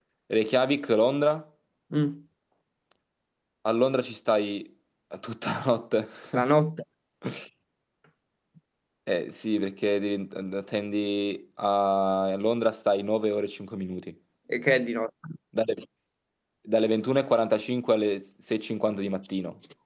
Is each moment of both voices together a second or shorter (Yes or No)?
Yes